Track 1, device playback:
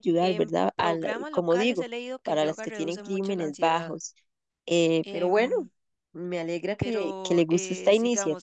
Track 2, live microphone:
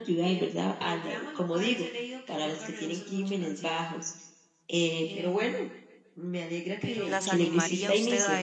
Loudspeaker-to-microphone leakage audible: Yes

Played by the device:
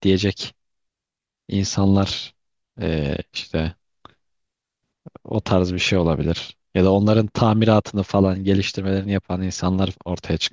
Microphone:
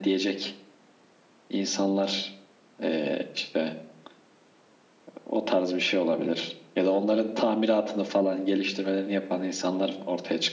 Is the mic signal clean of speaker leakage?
No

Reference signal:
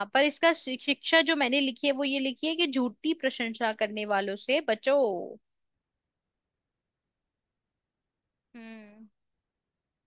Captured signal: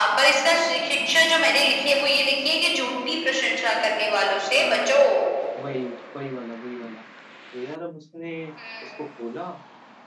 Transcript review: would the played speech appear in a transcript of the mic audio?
Yes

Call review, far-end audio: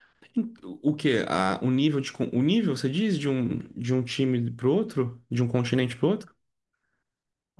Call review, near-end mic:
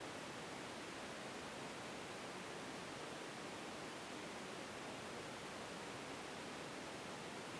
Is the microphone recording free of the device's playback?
Yes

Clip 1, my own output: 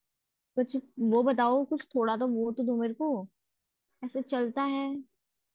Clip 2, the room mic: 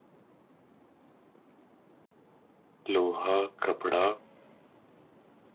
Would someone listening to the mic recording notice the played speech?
No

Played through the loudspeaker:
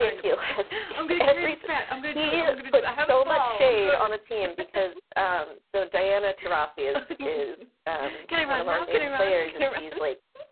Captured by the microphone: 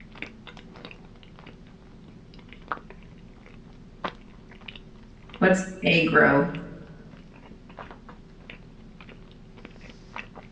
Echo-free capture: Yes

